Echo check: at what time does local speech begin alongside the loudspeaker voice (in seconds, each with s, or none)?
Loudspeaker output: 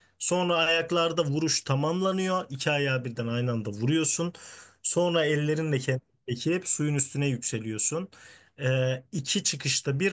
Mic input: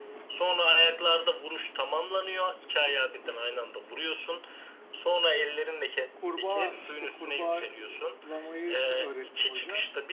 6.1 s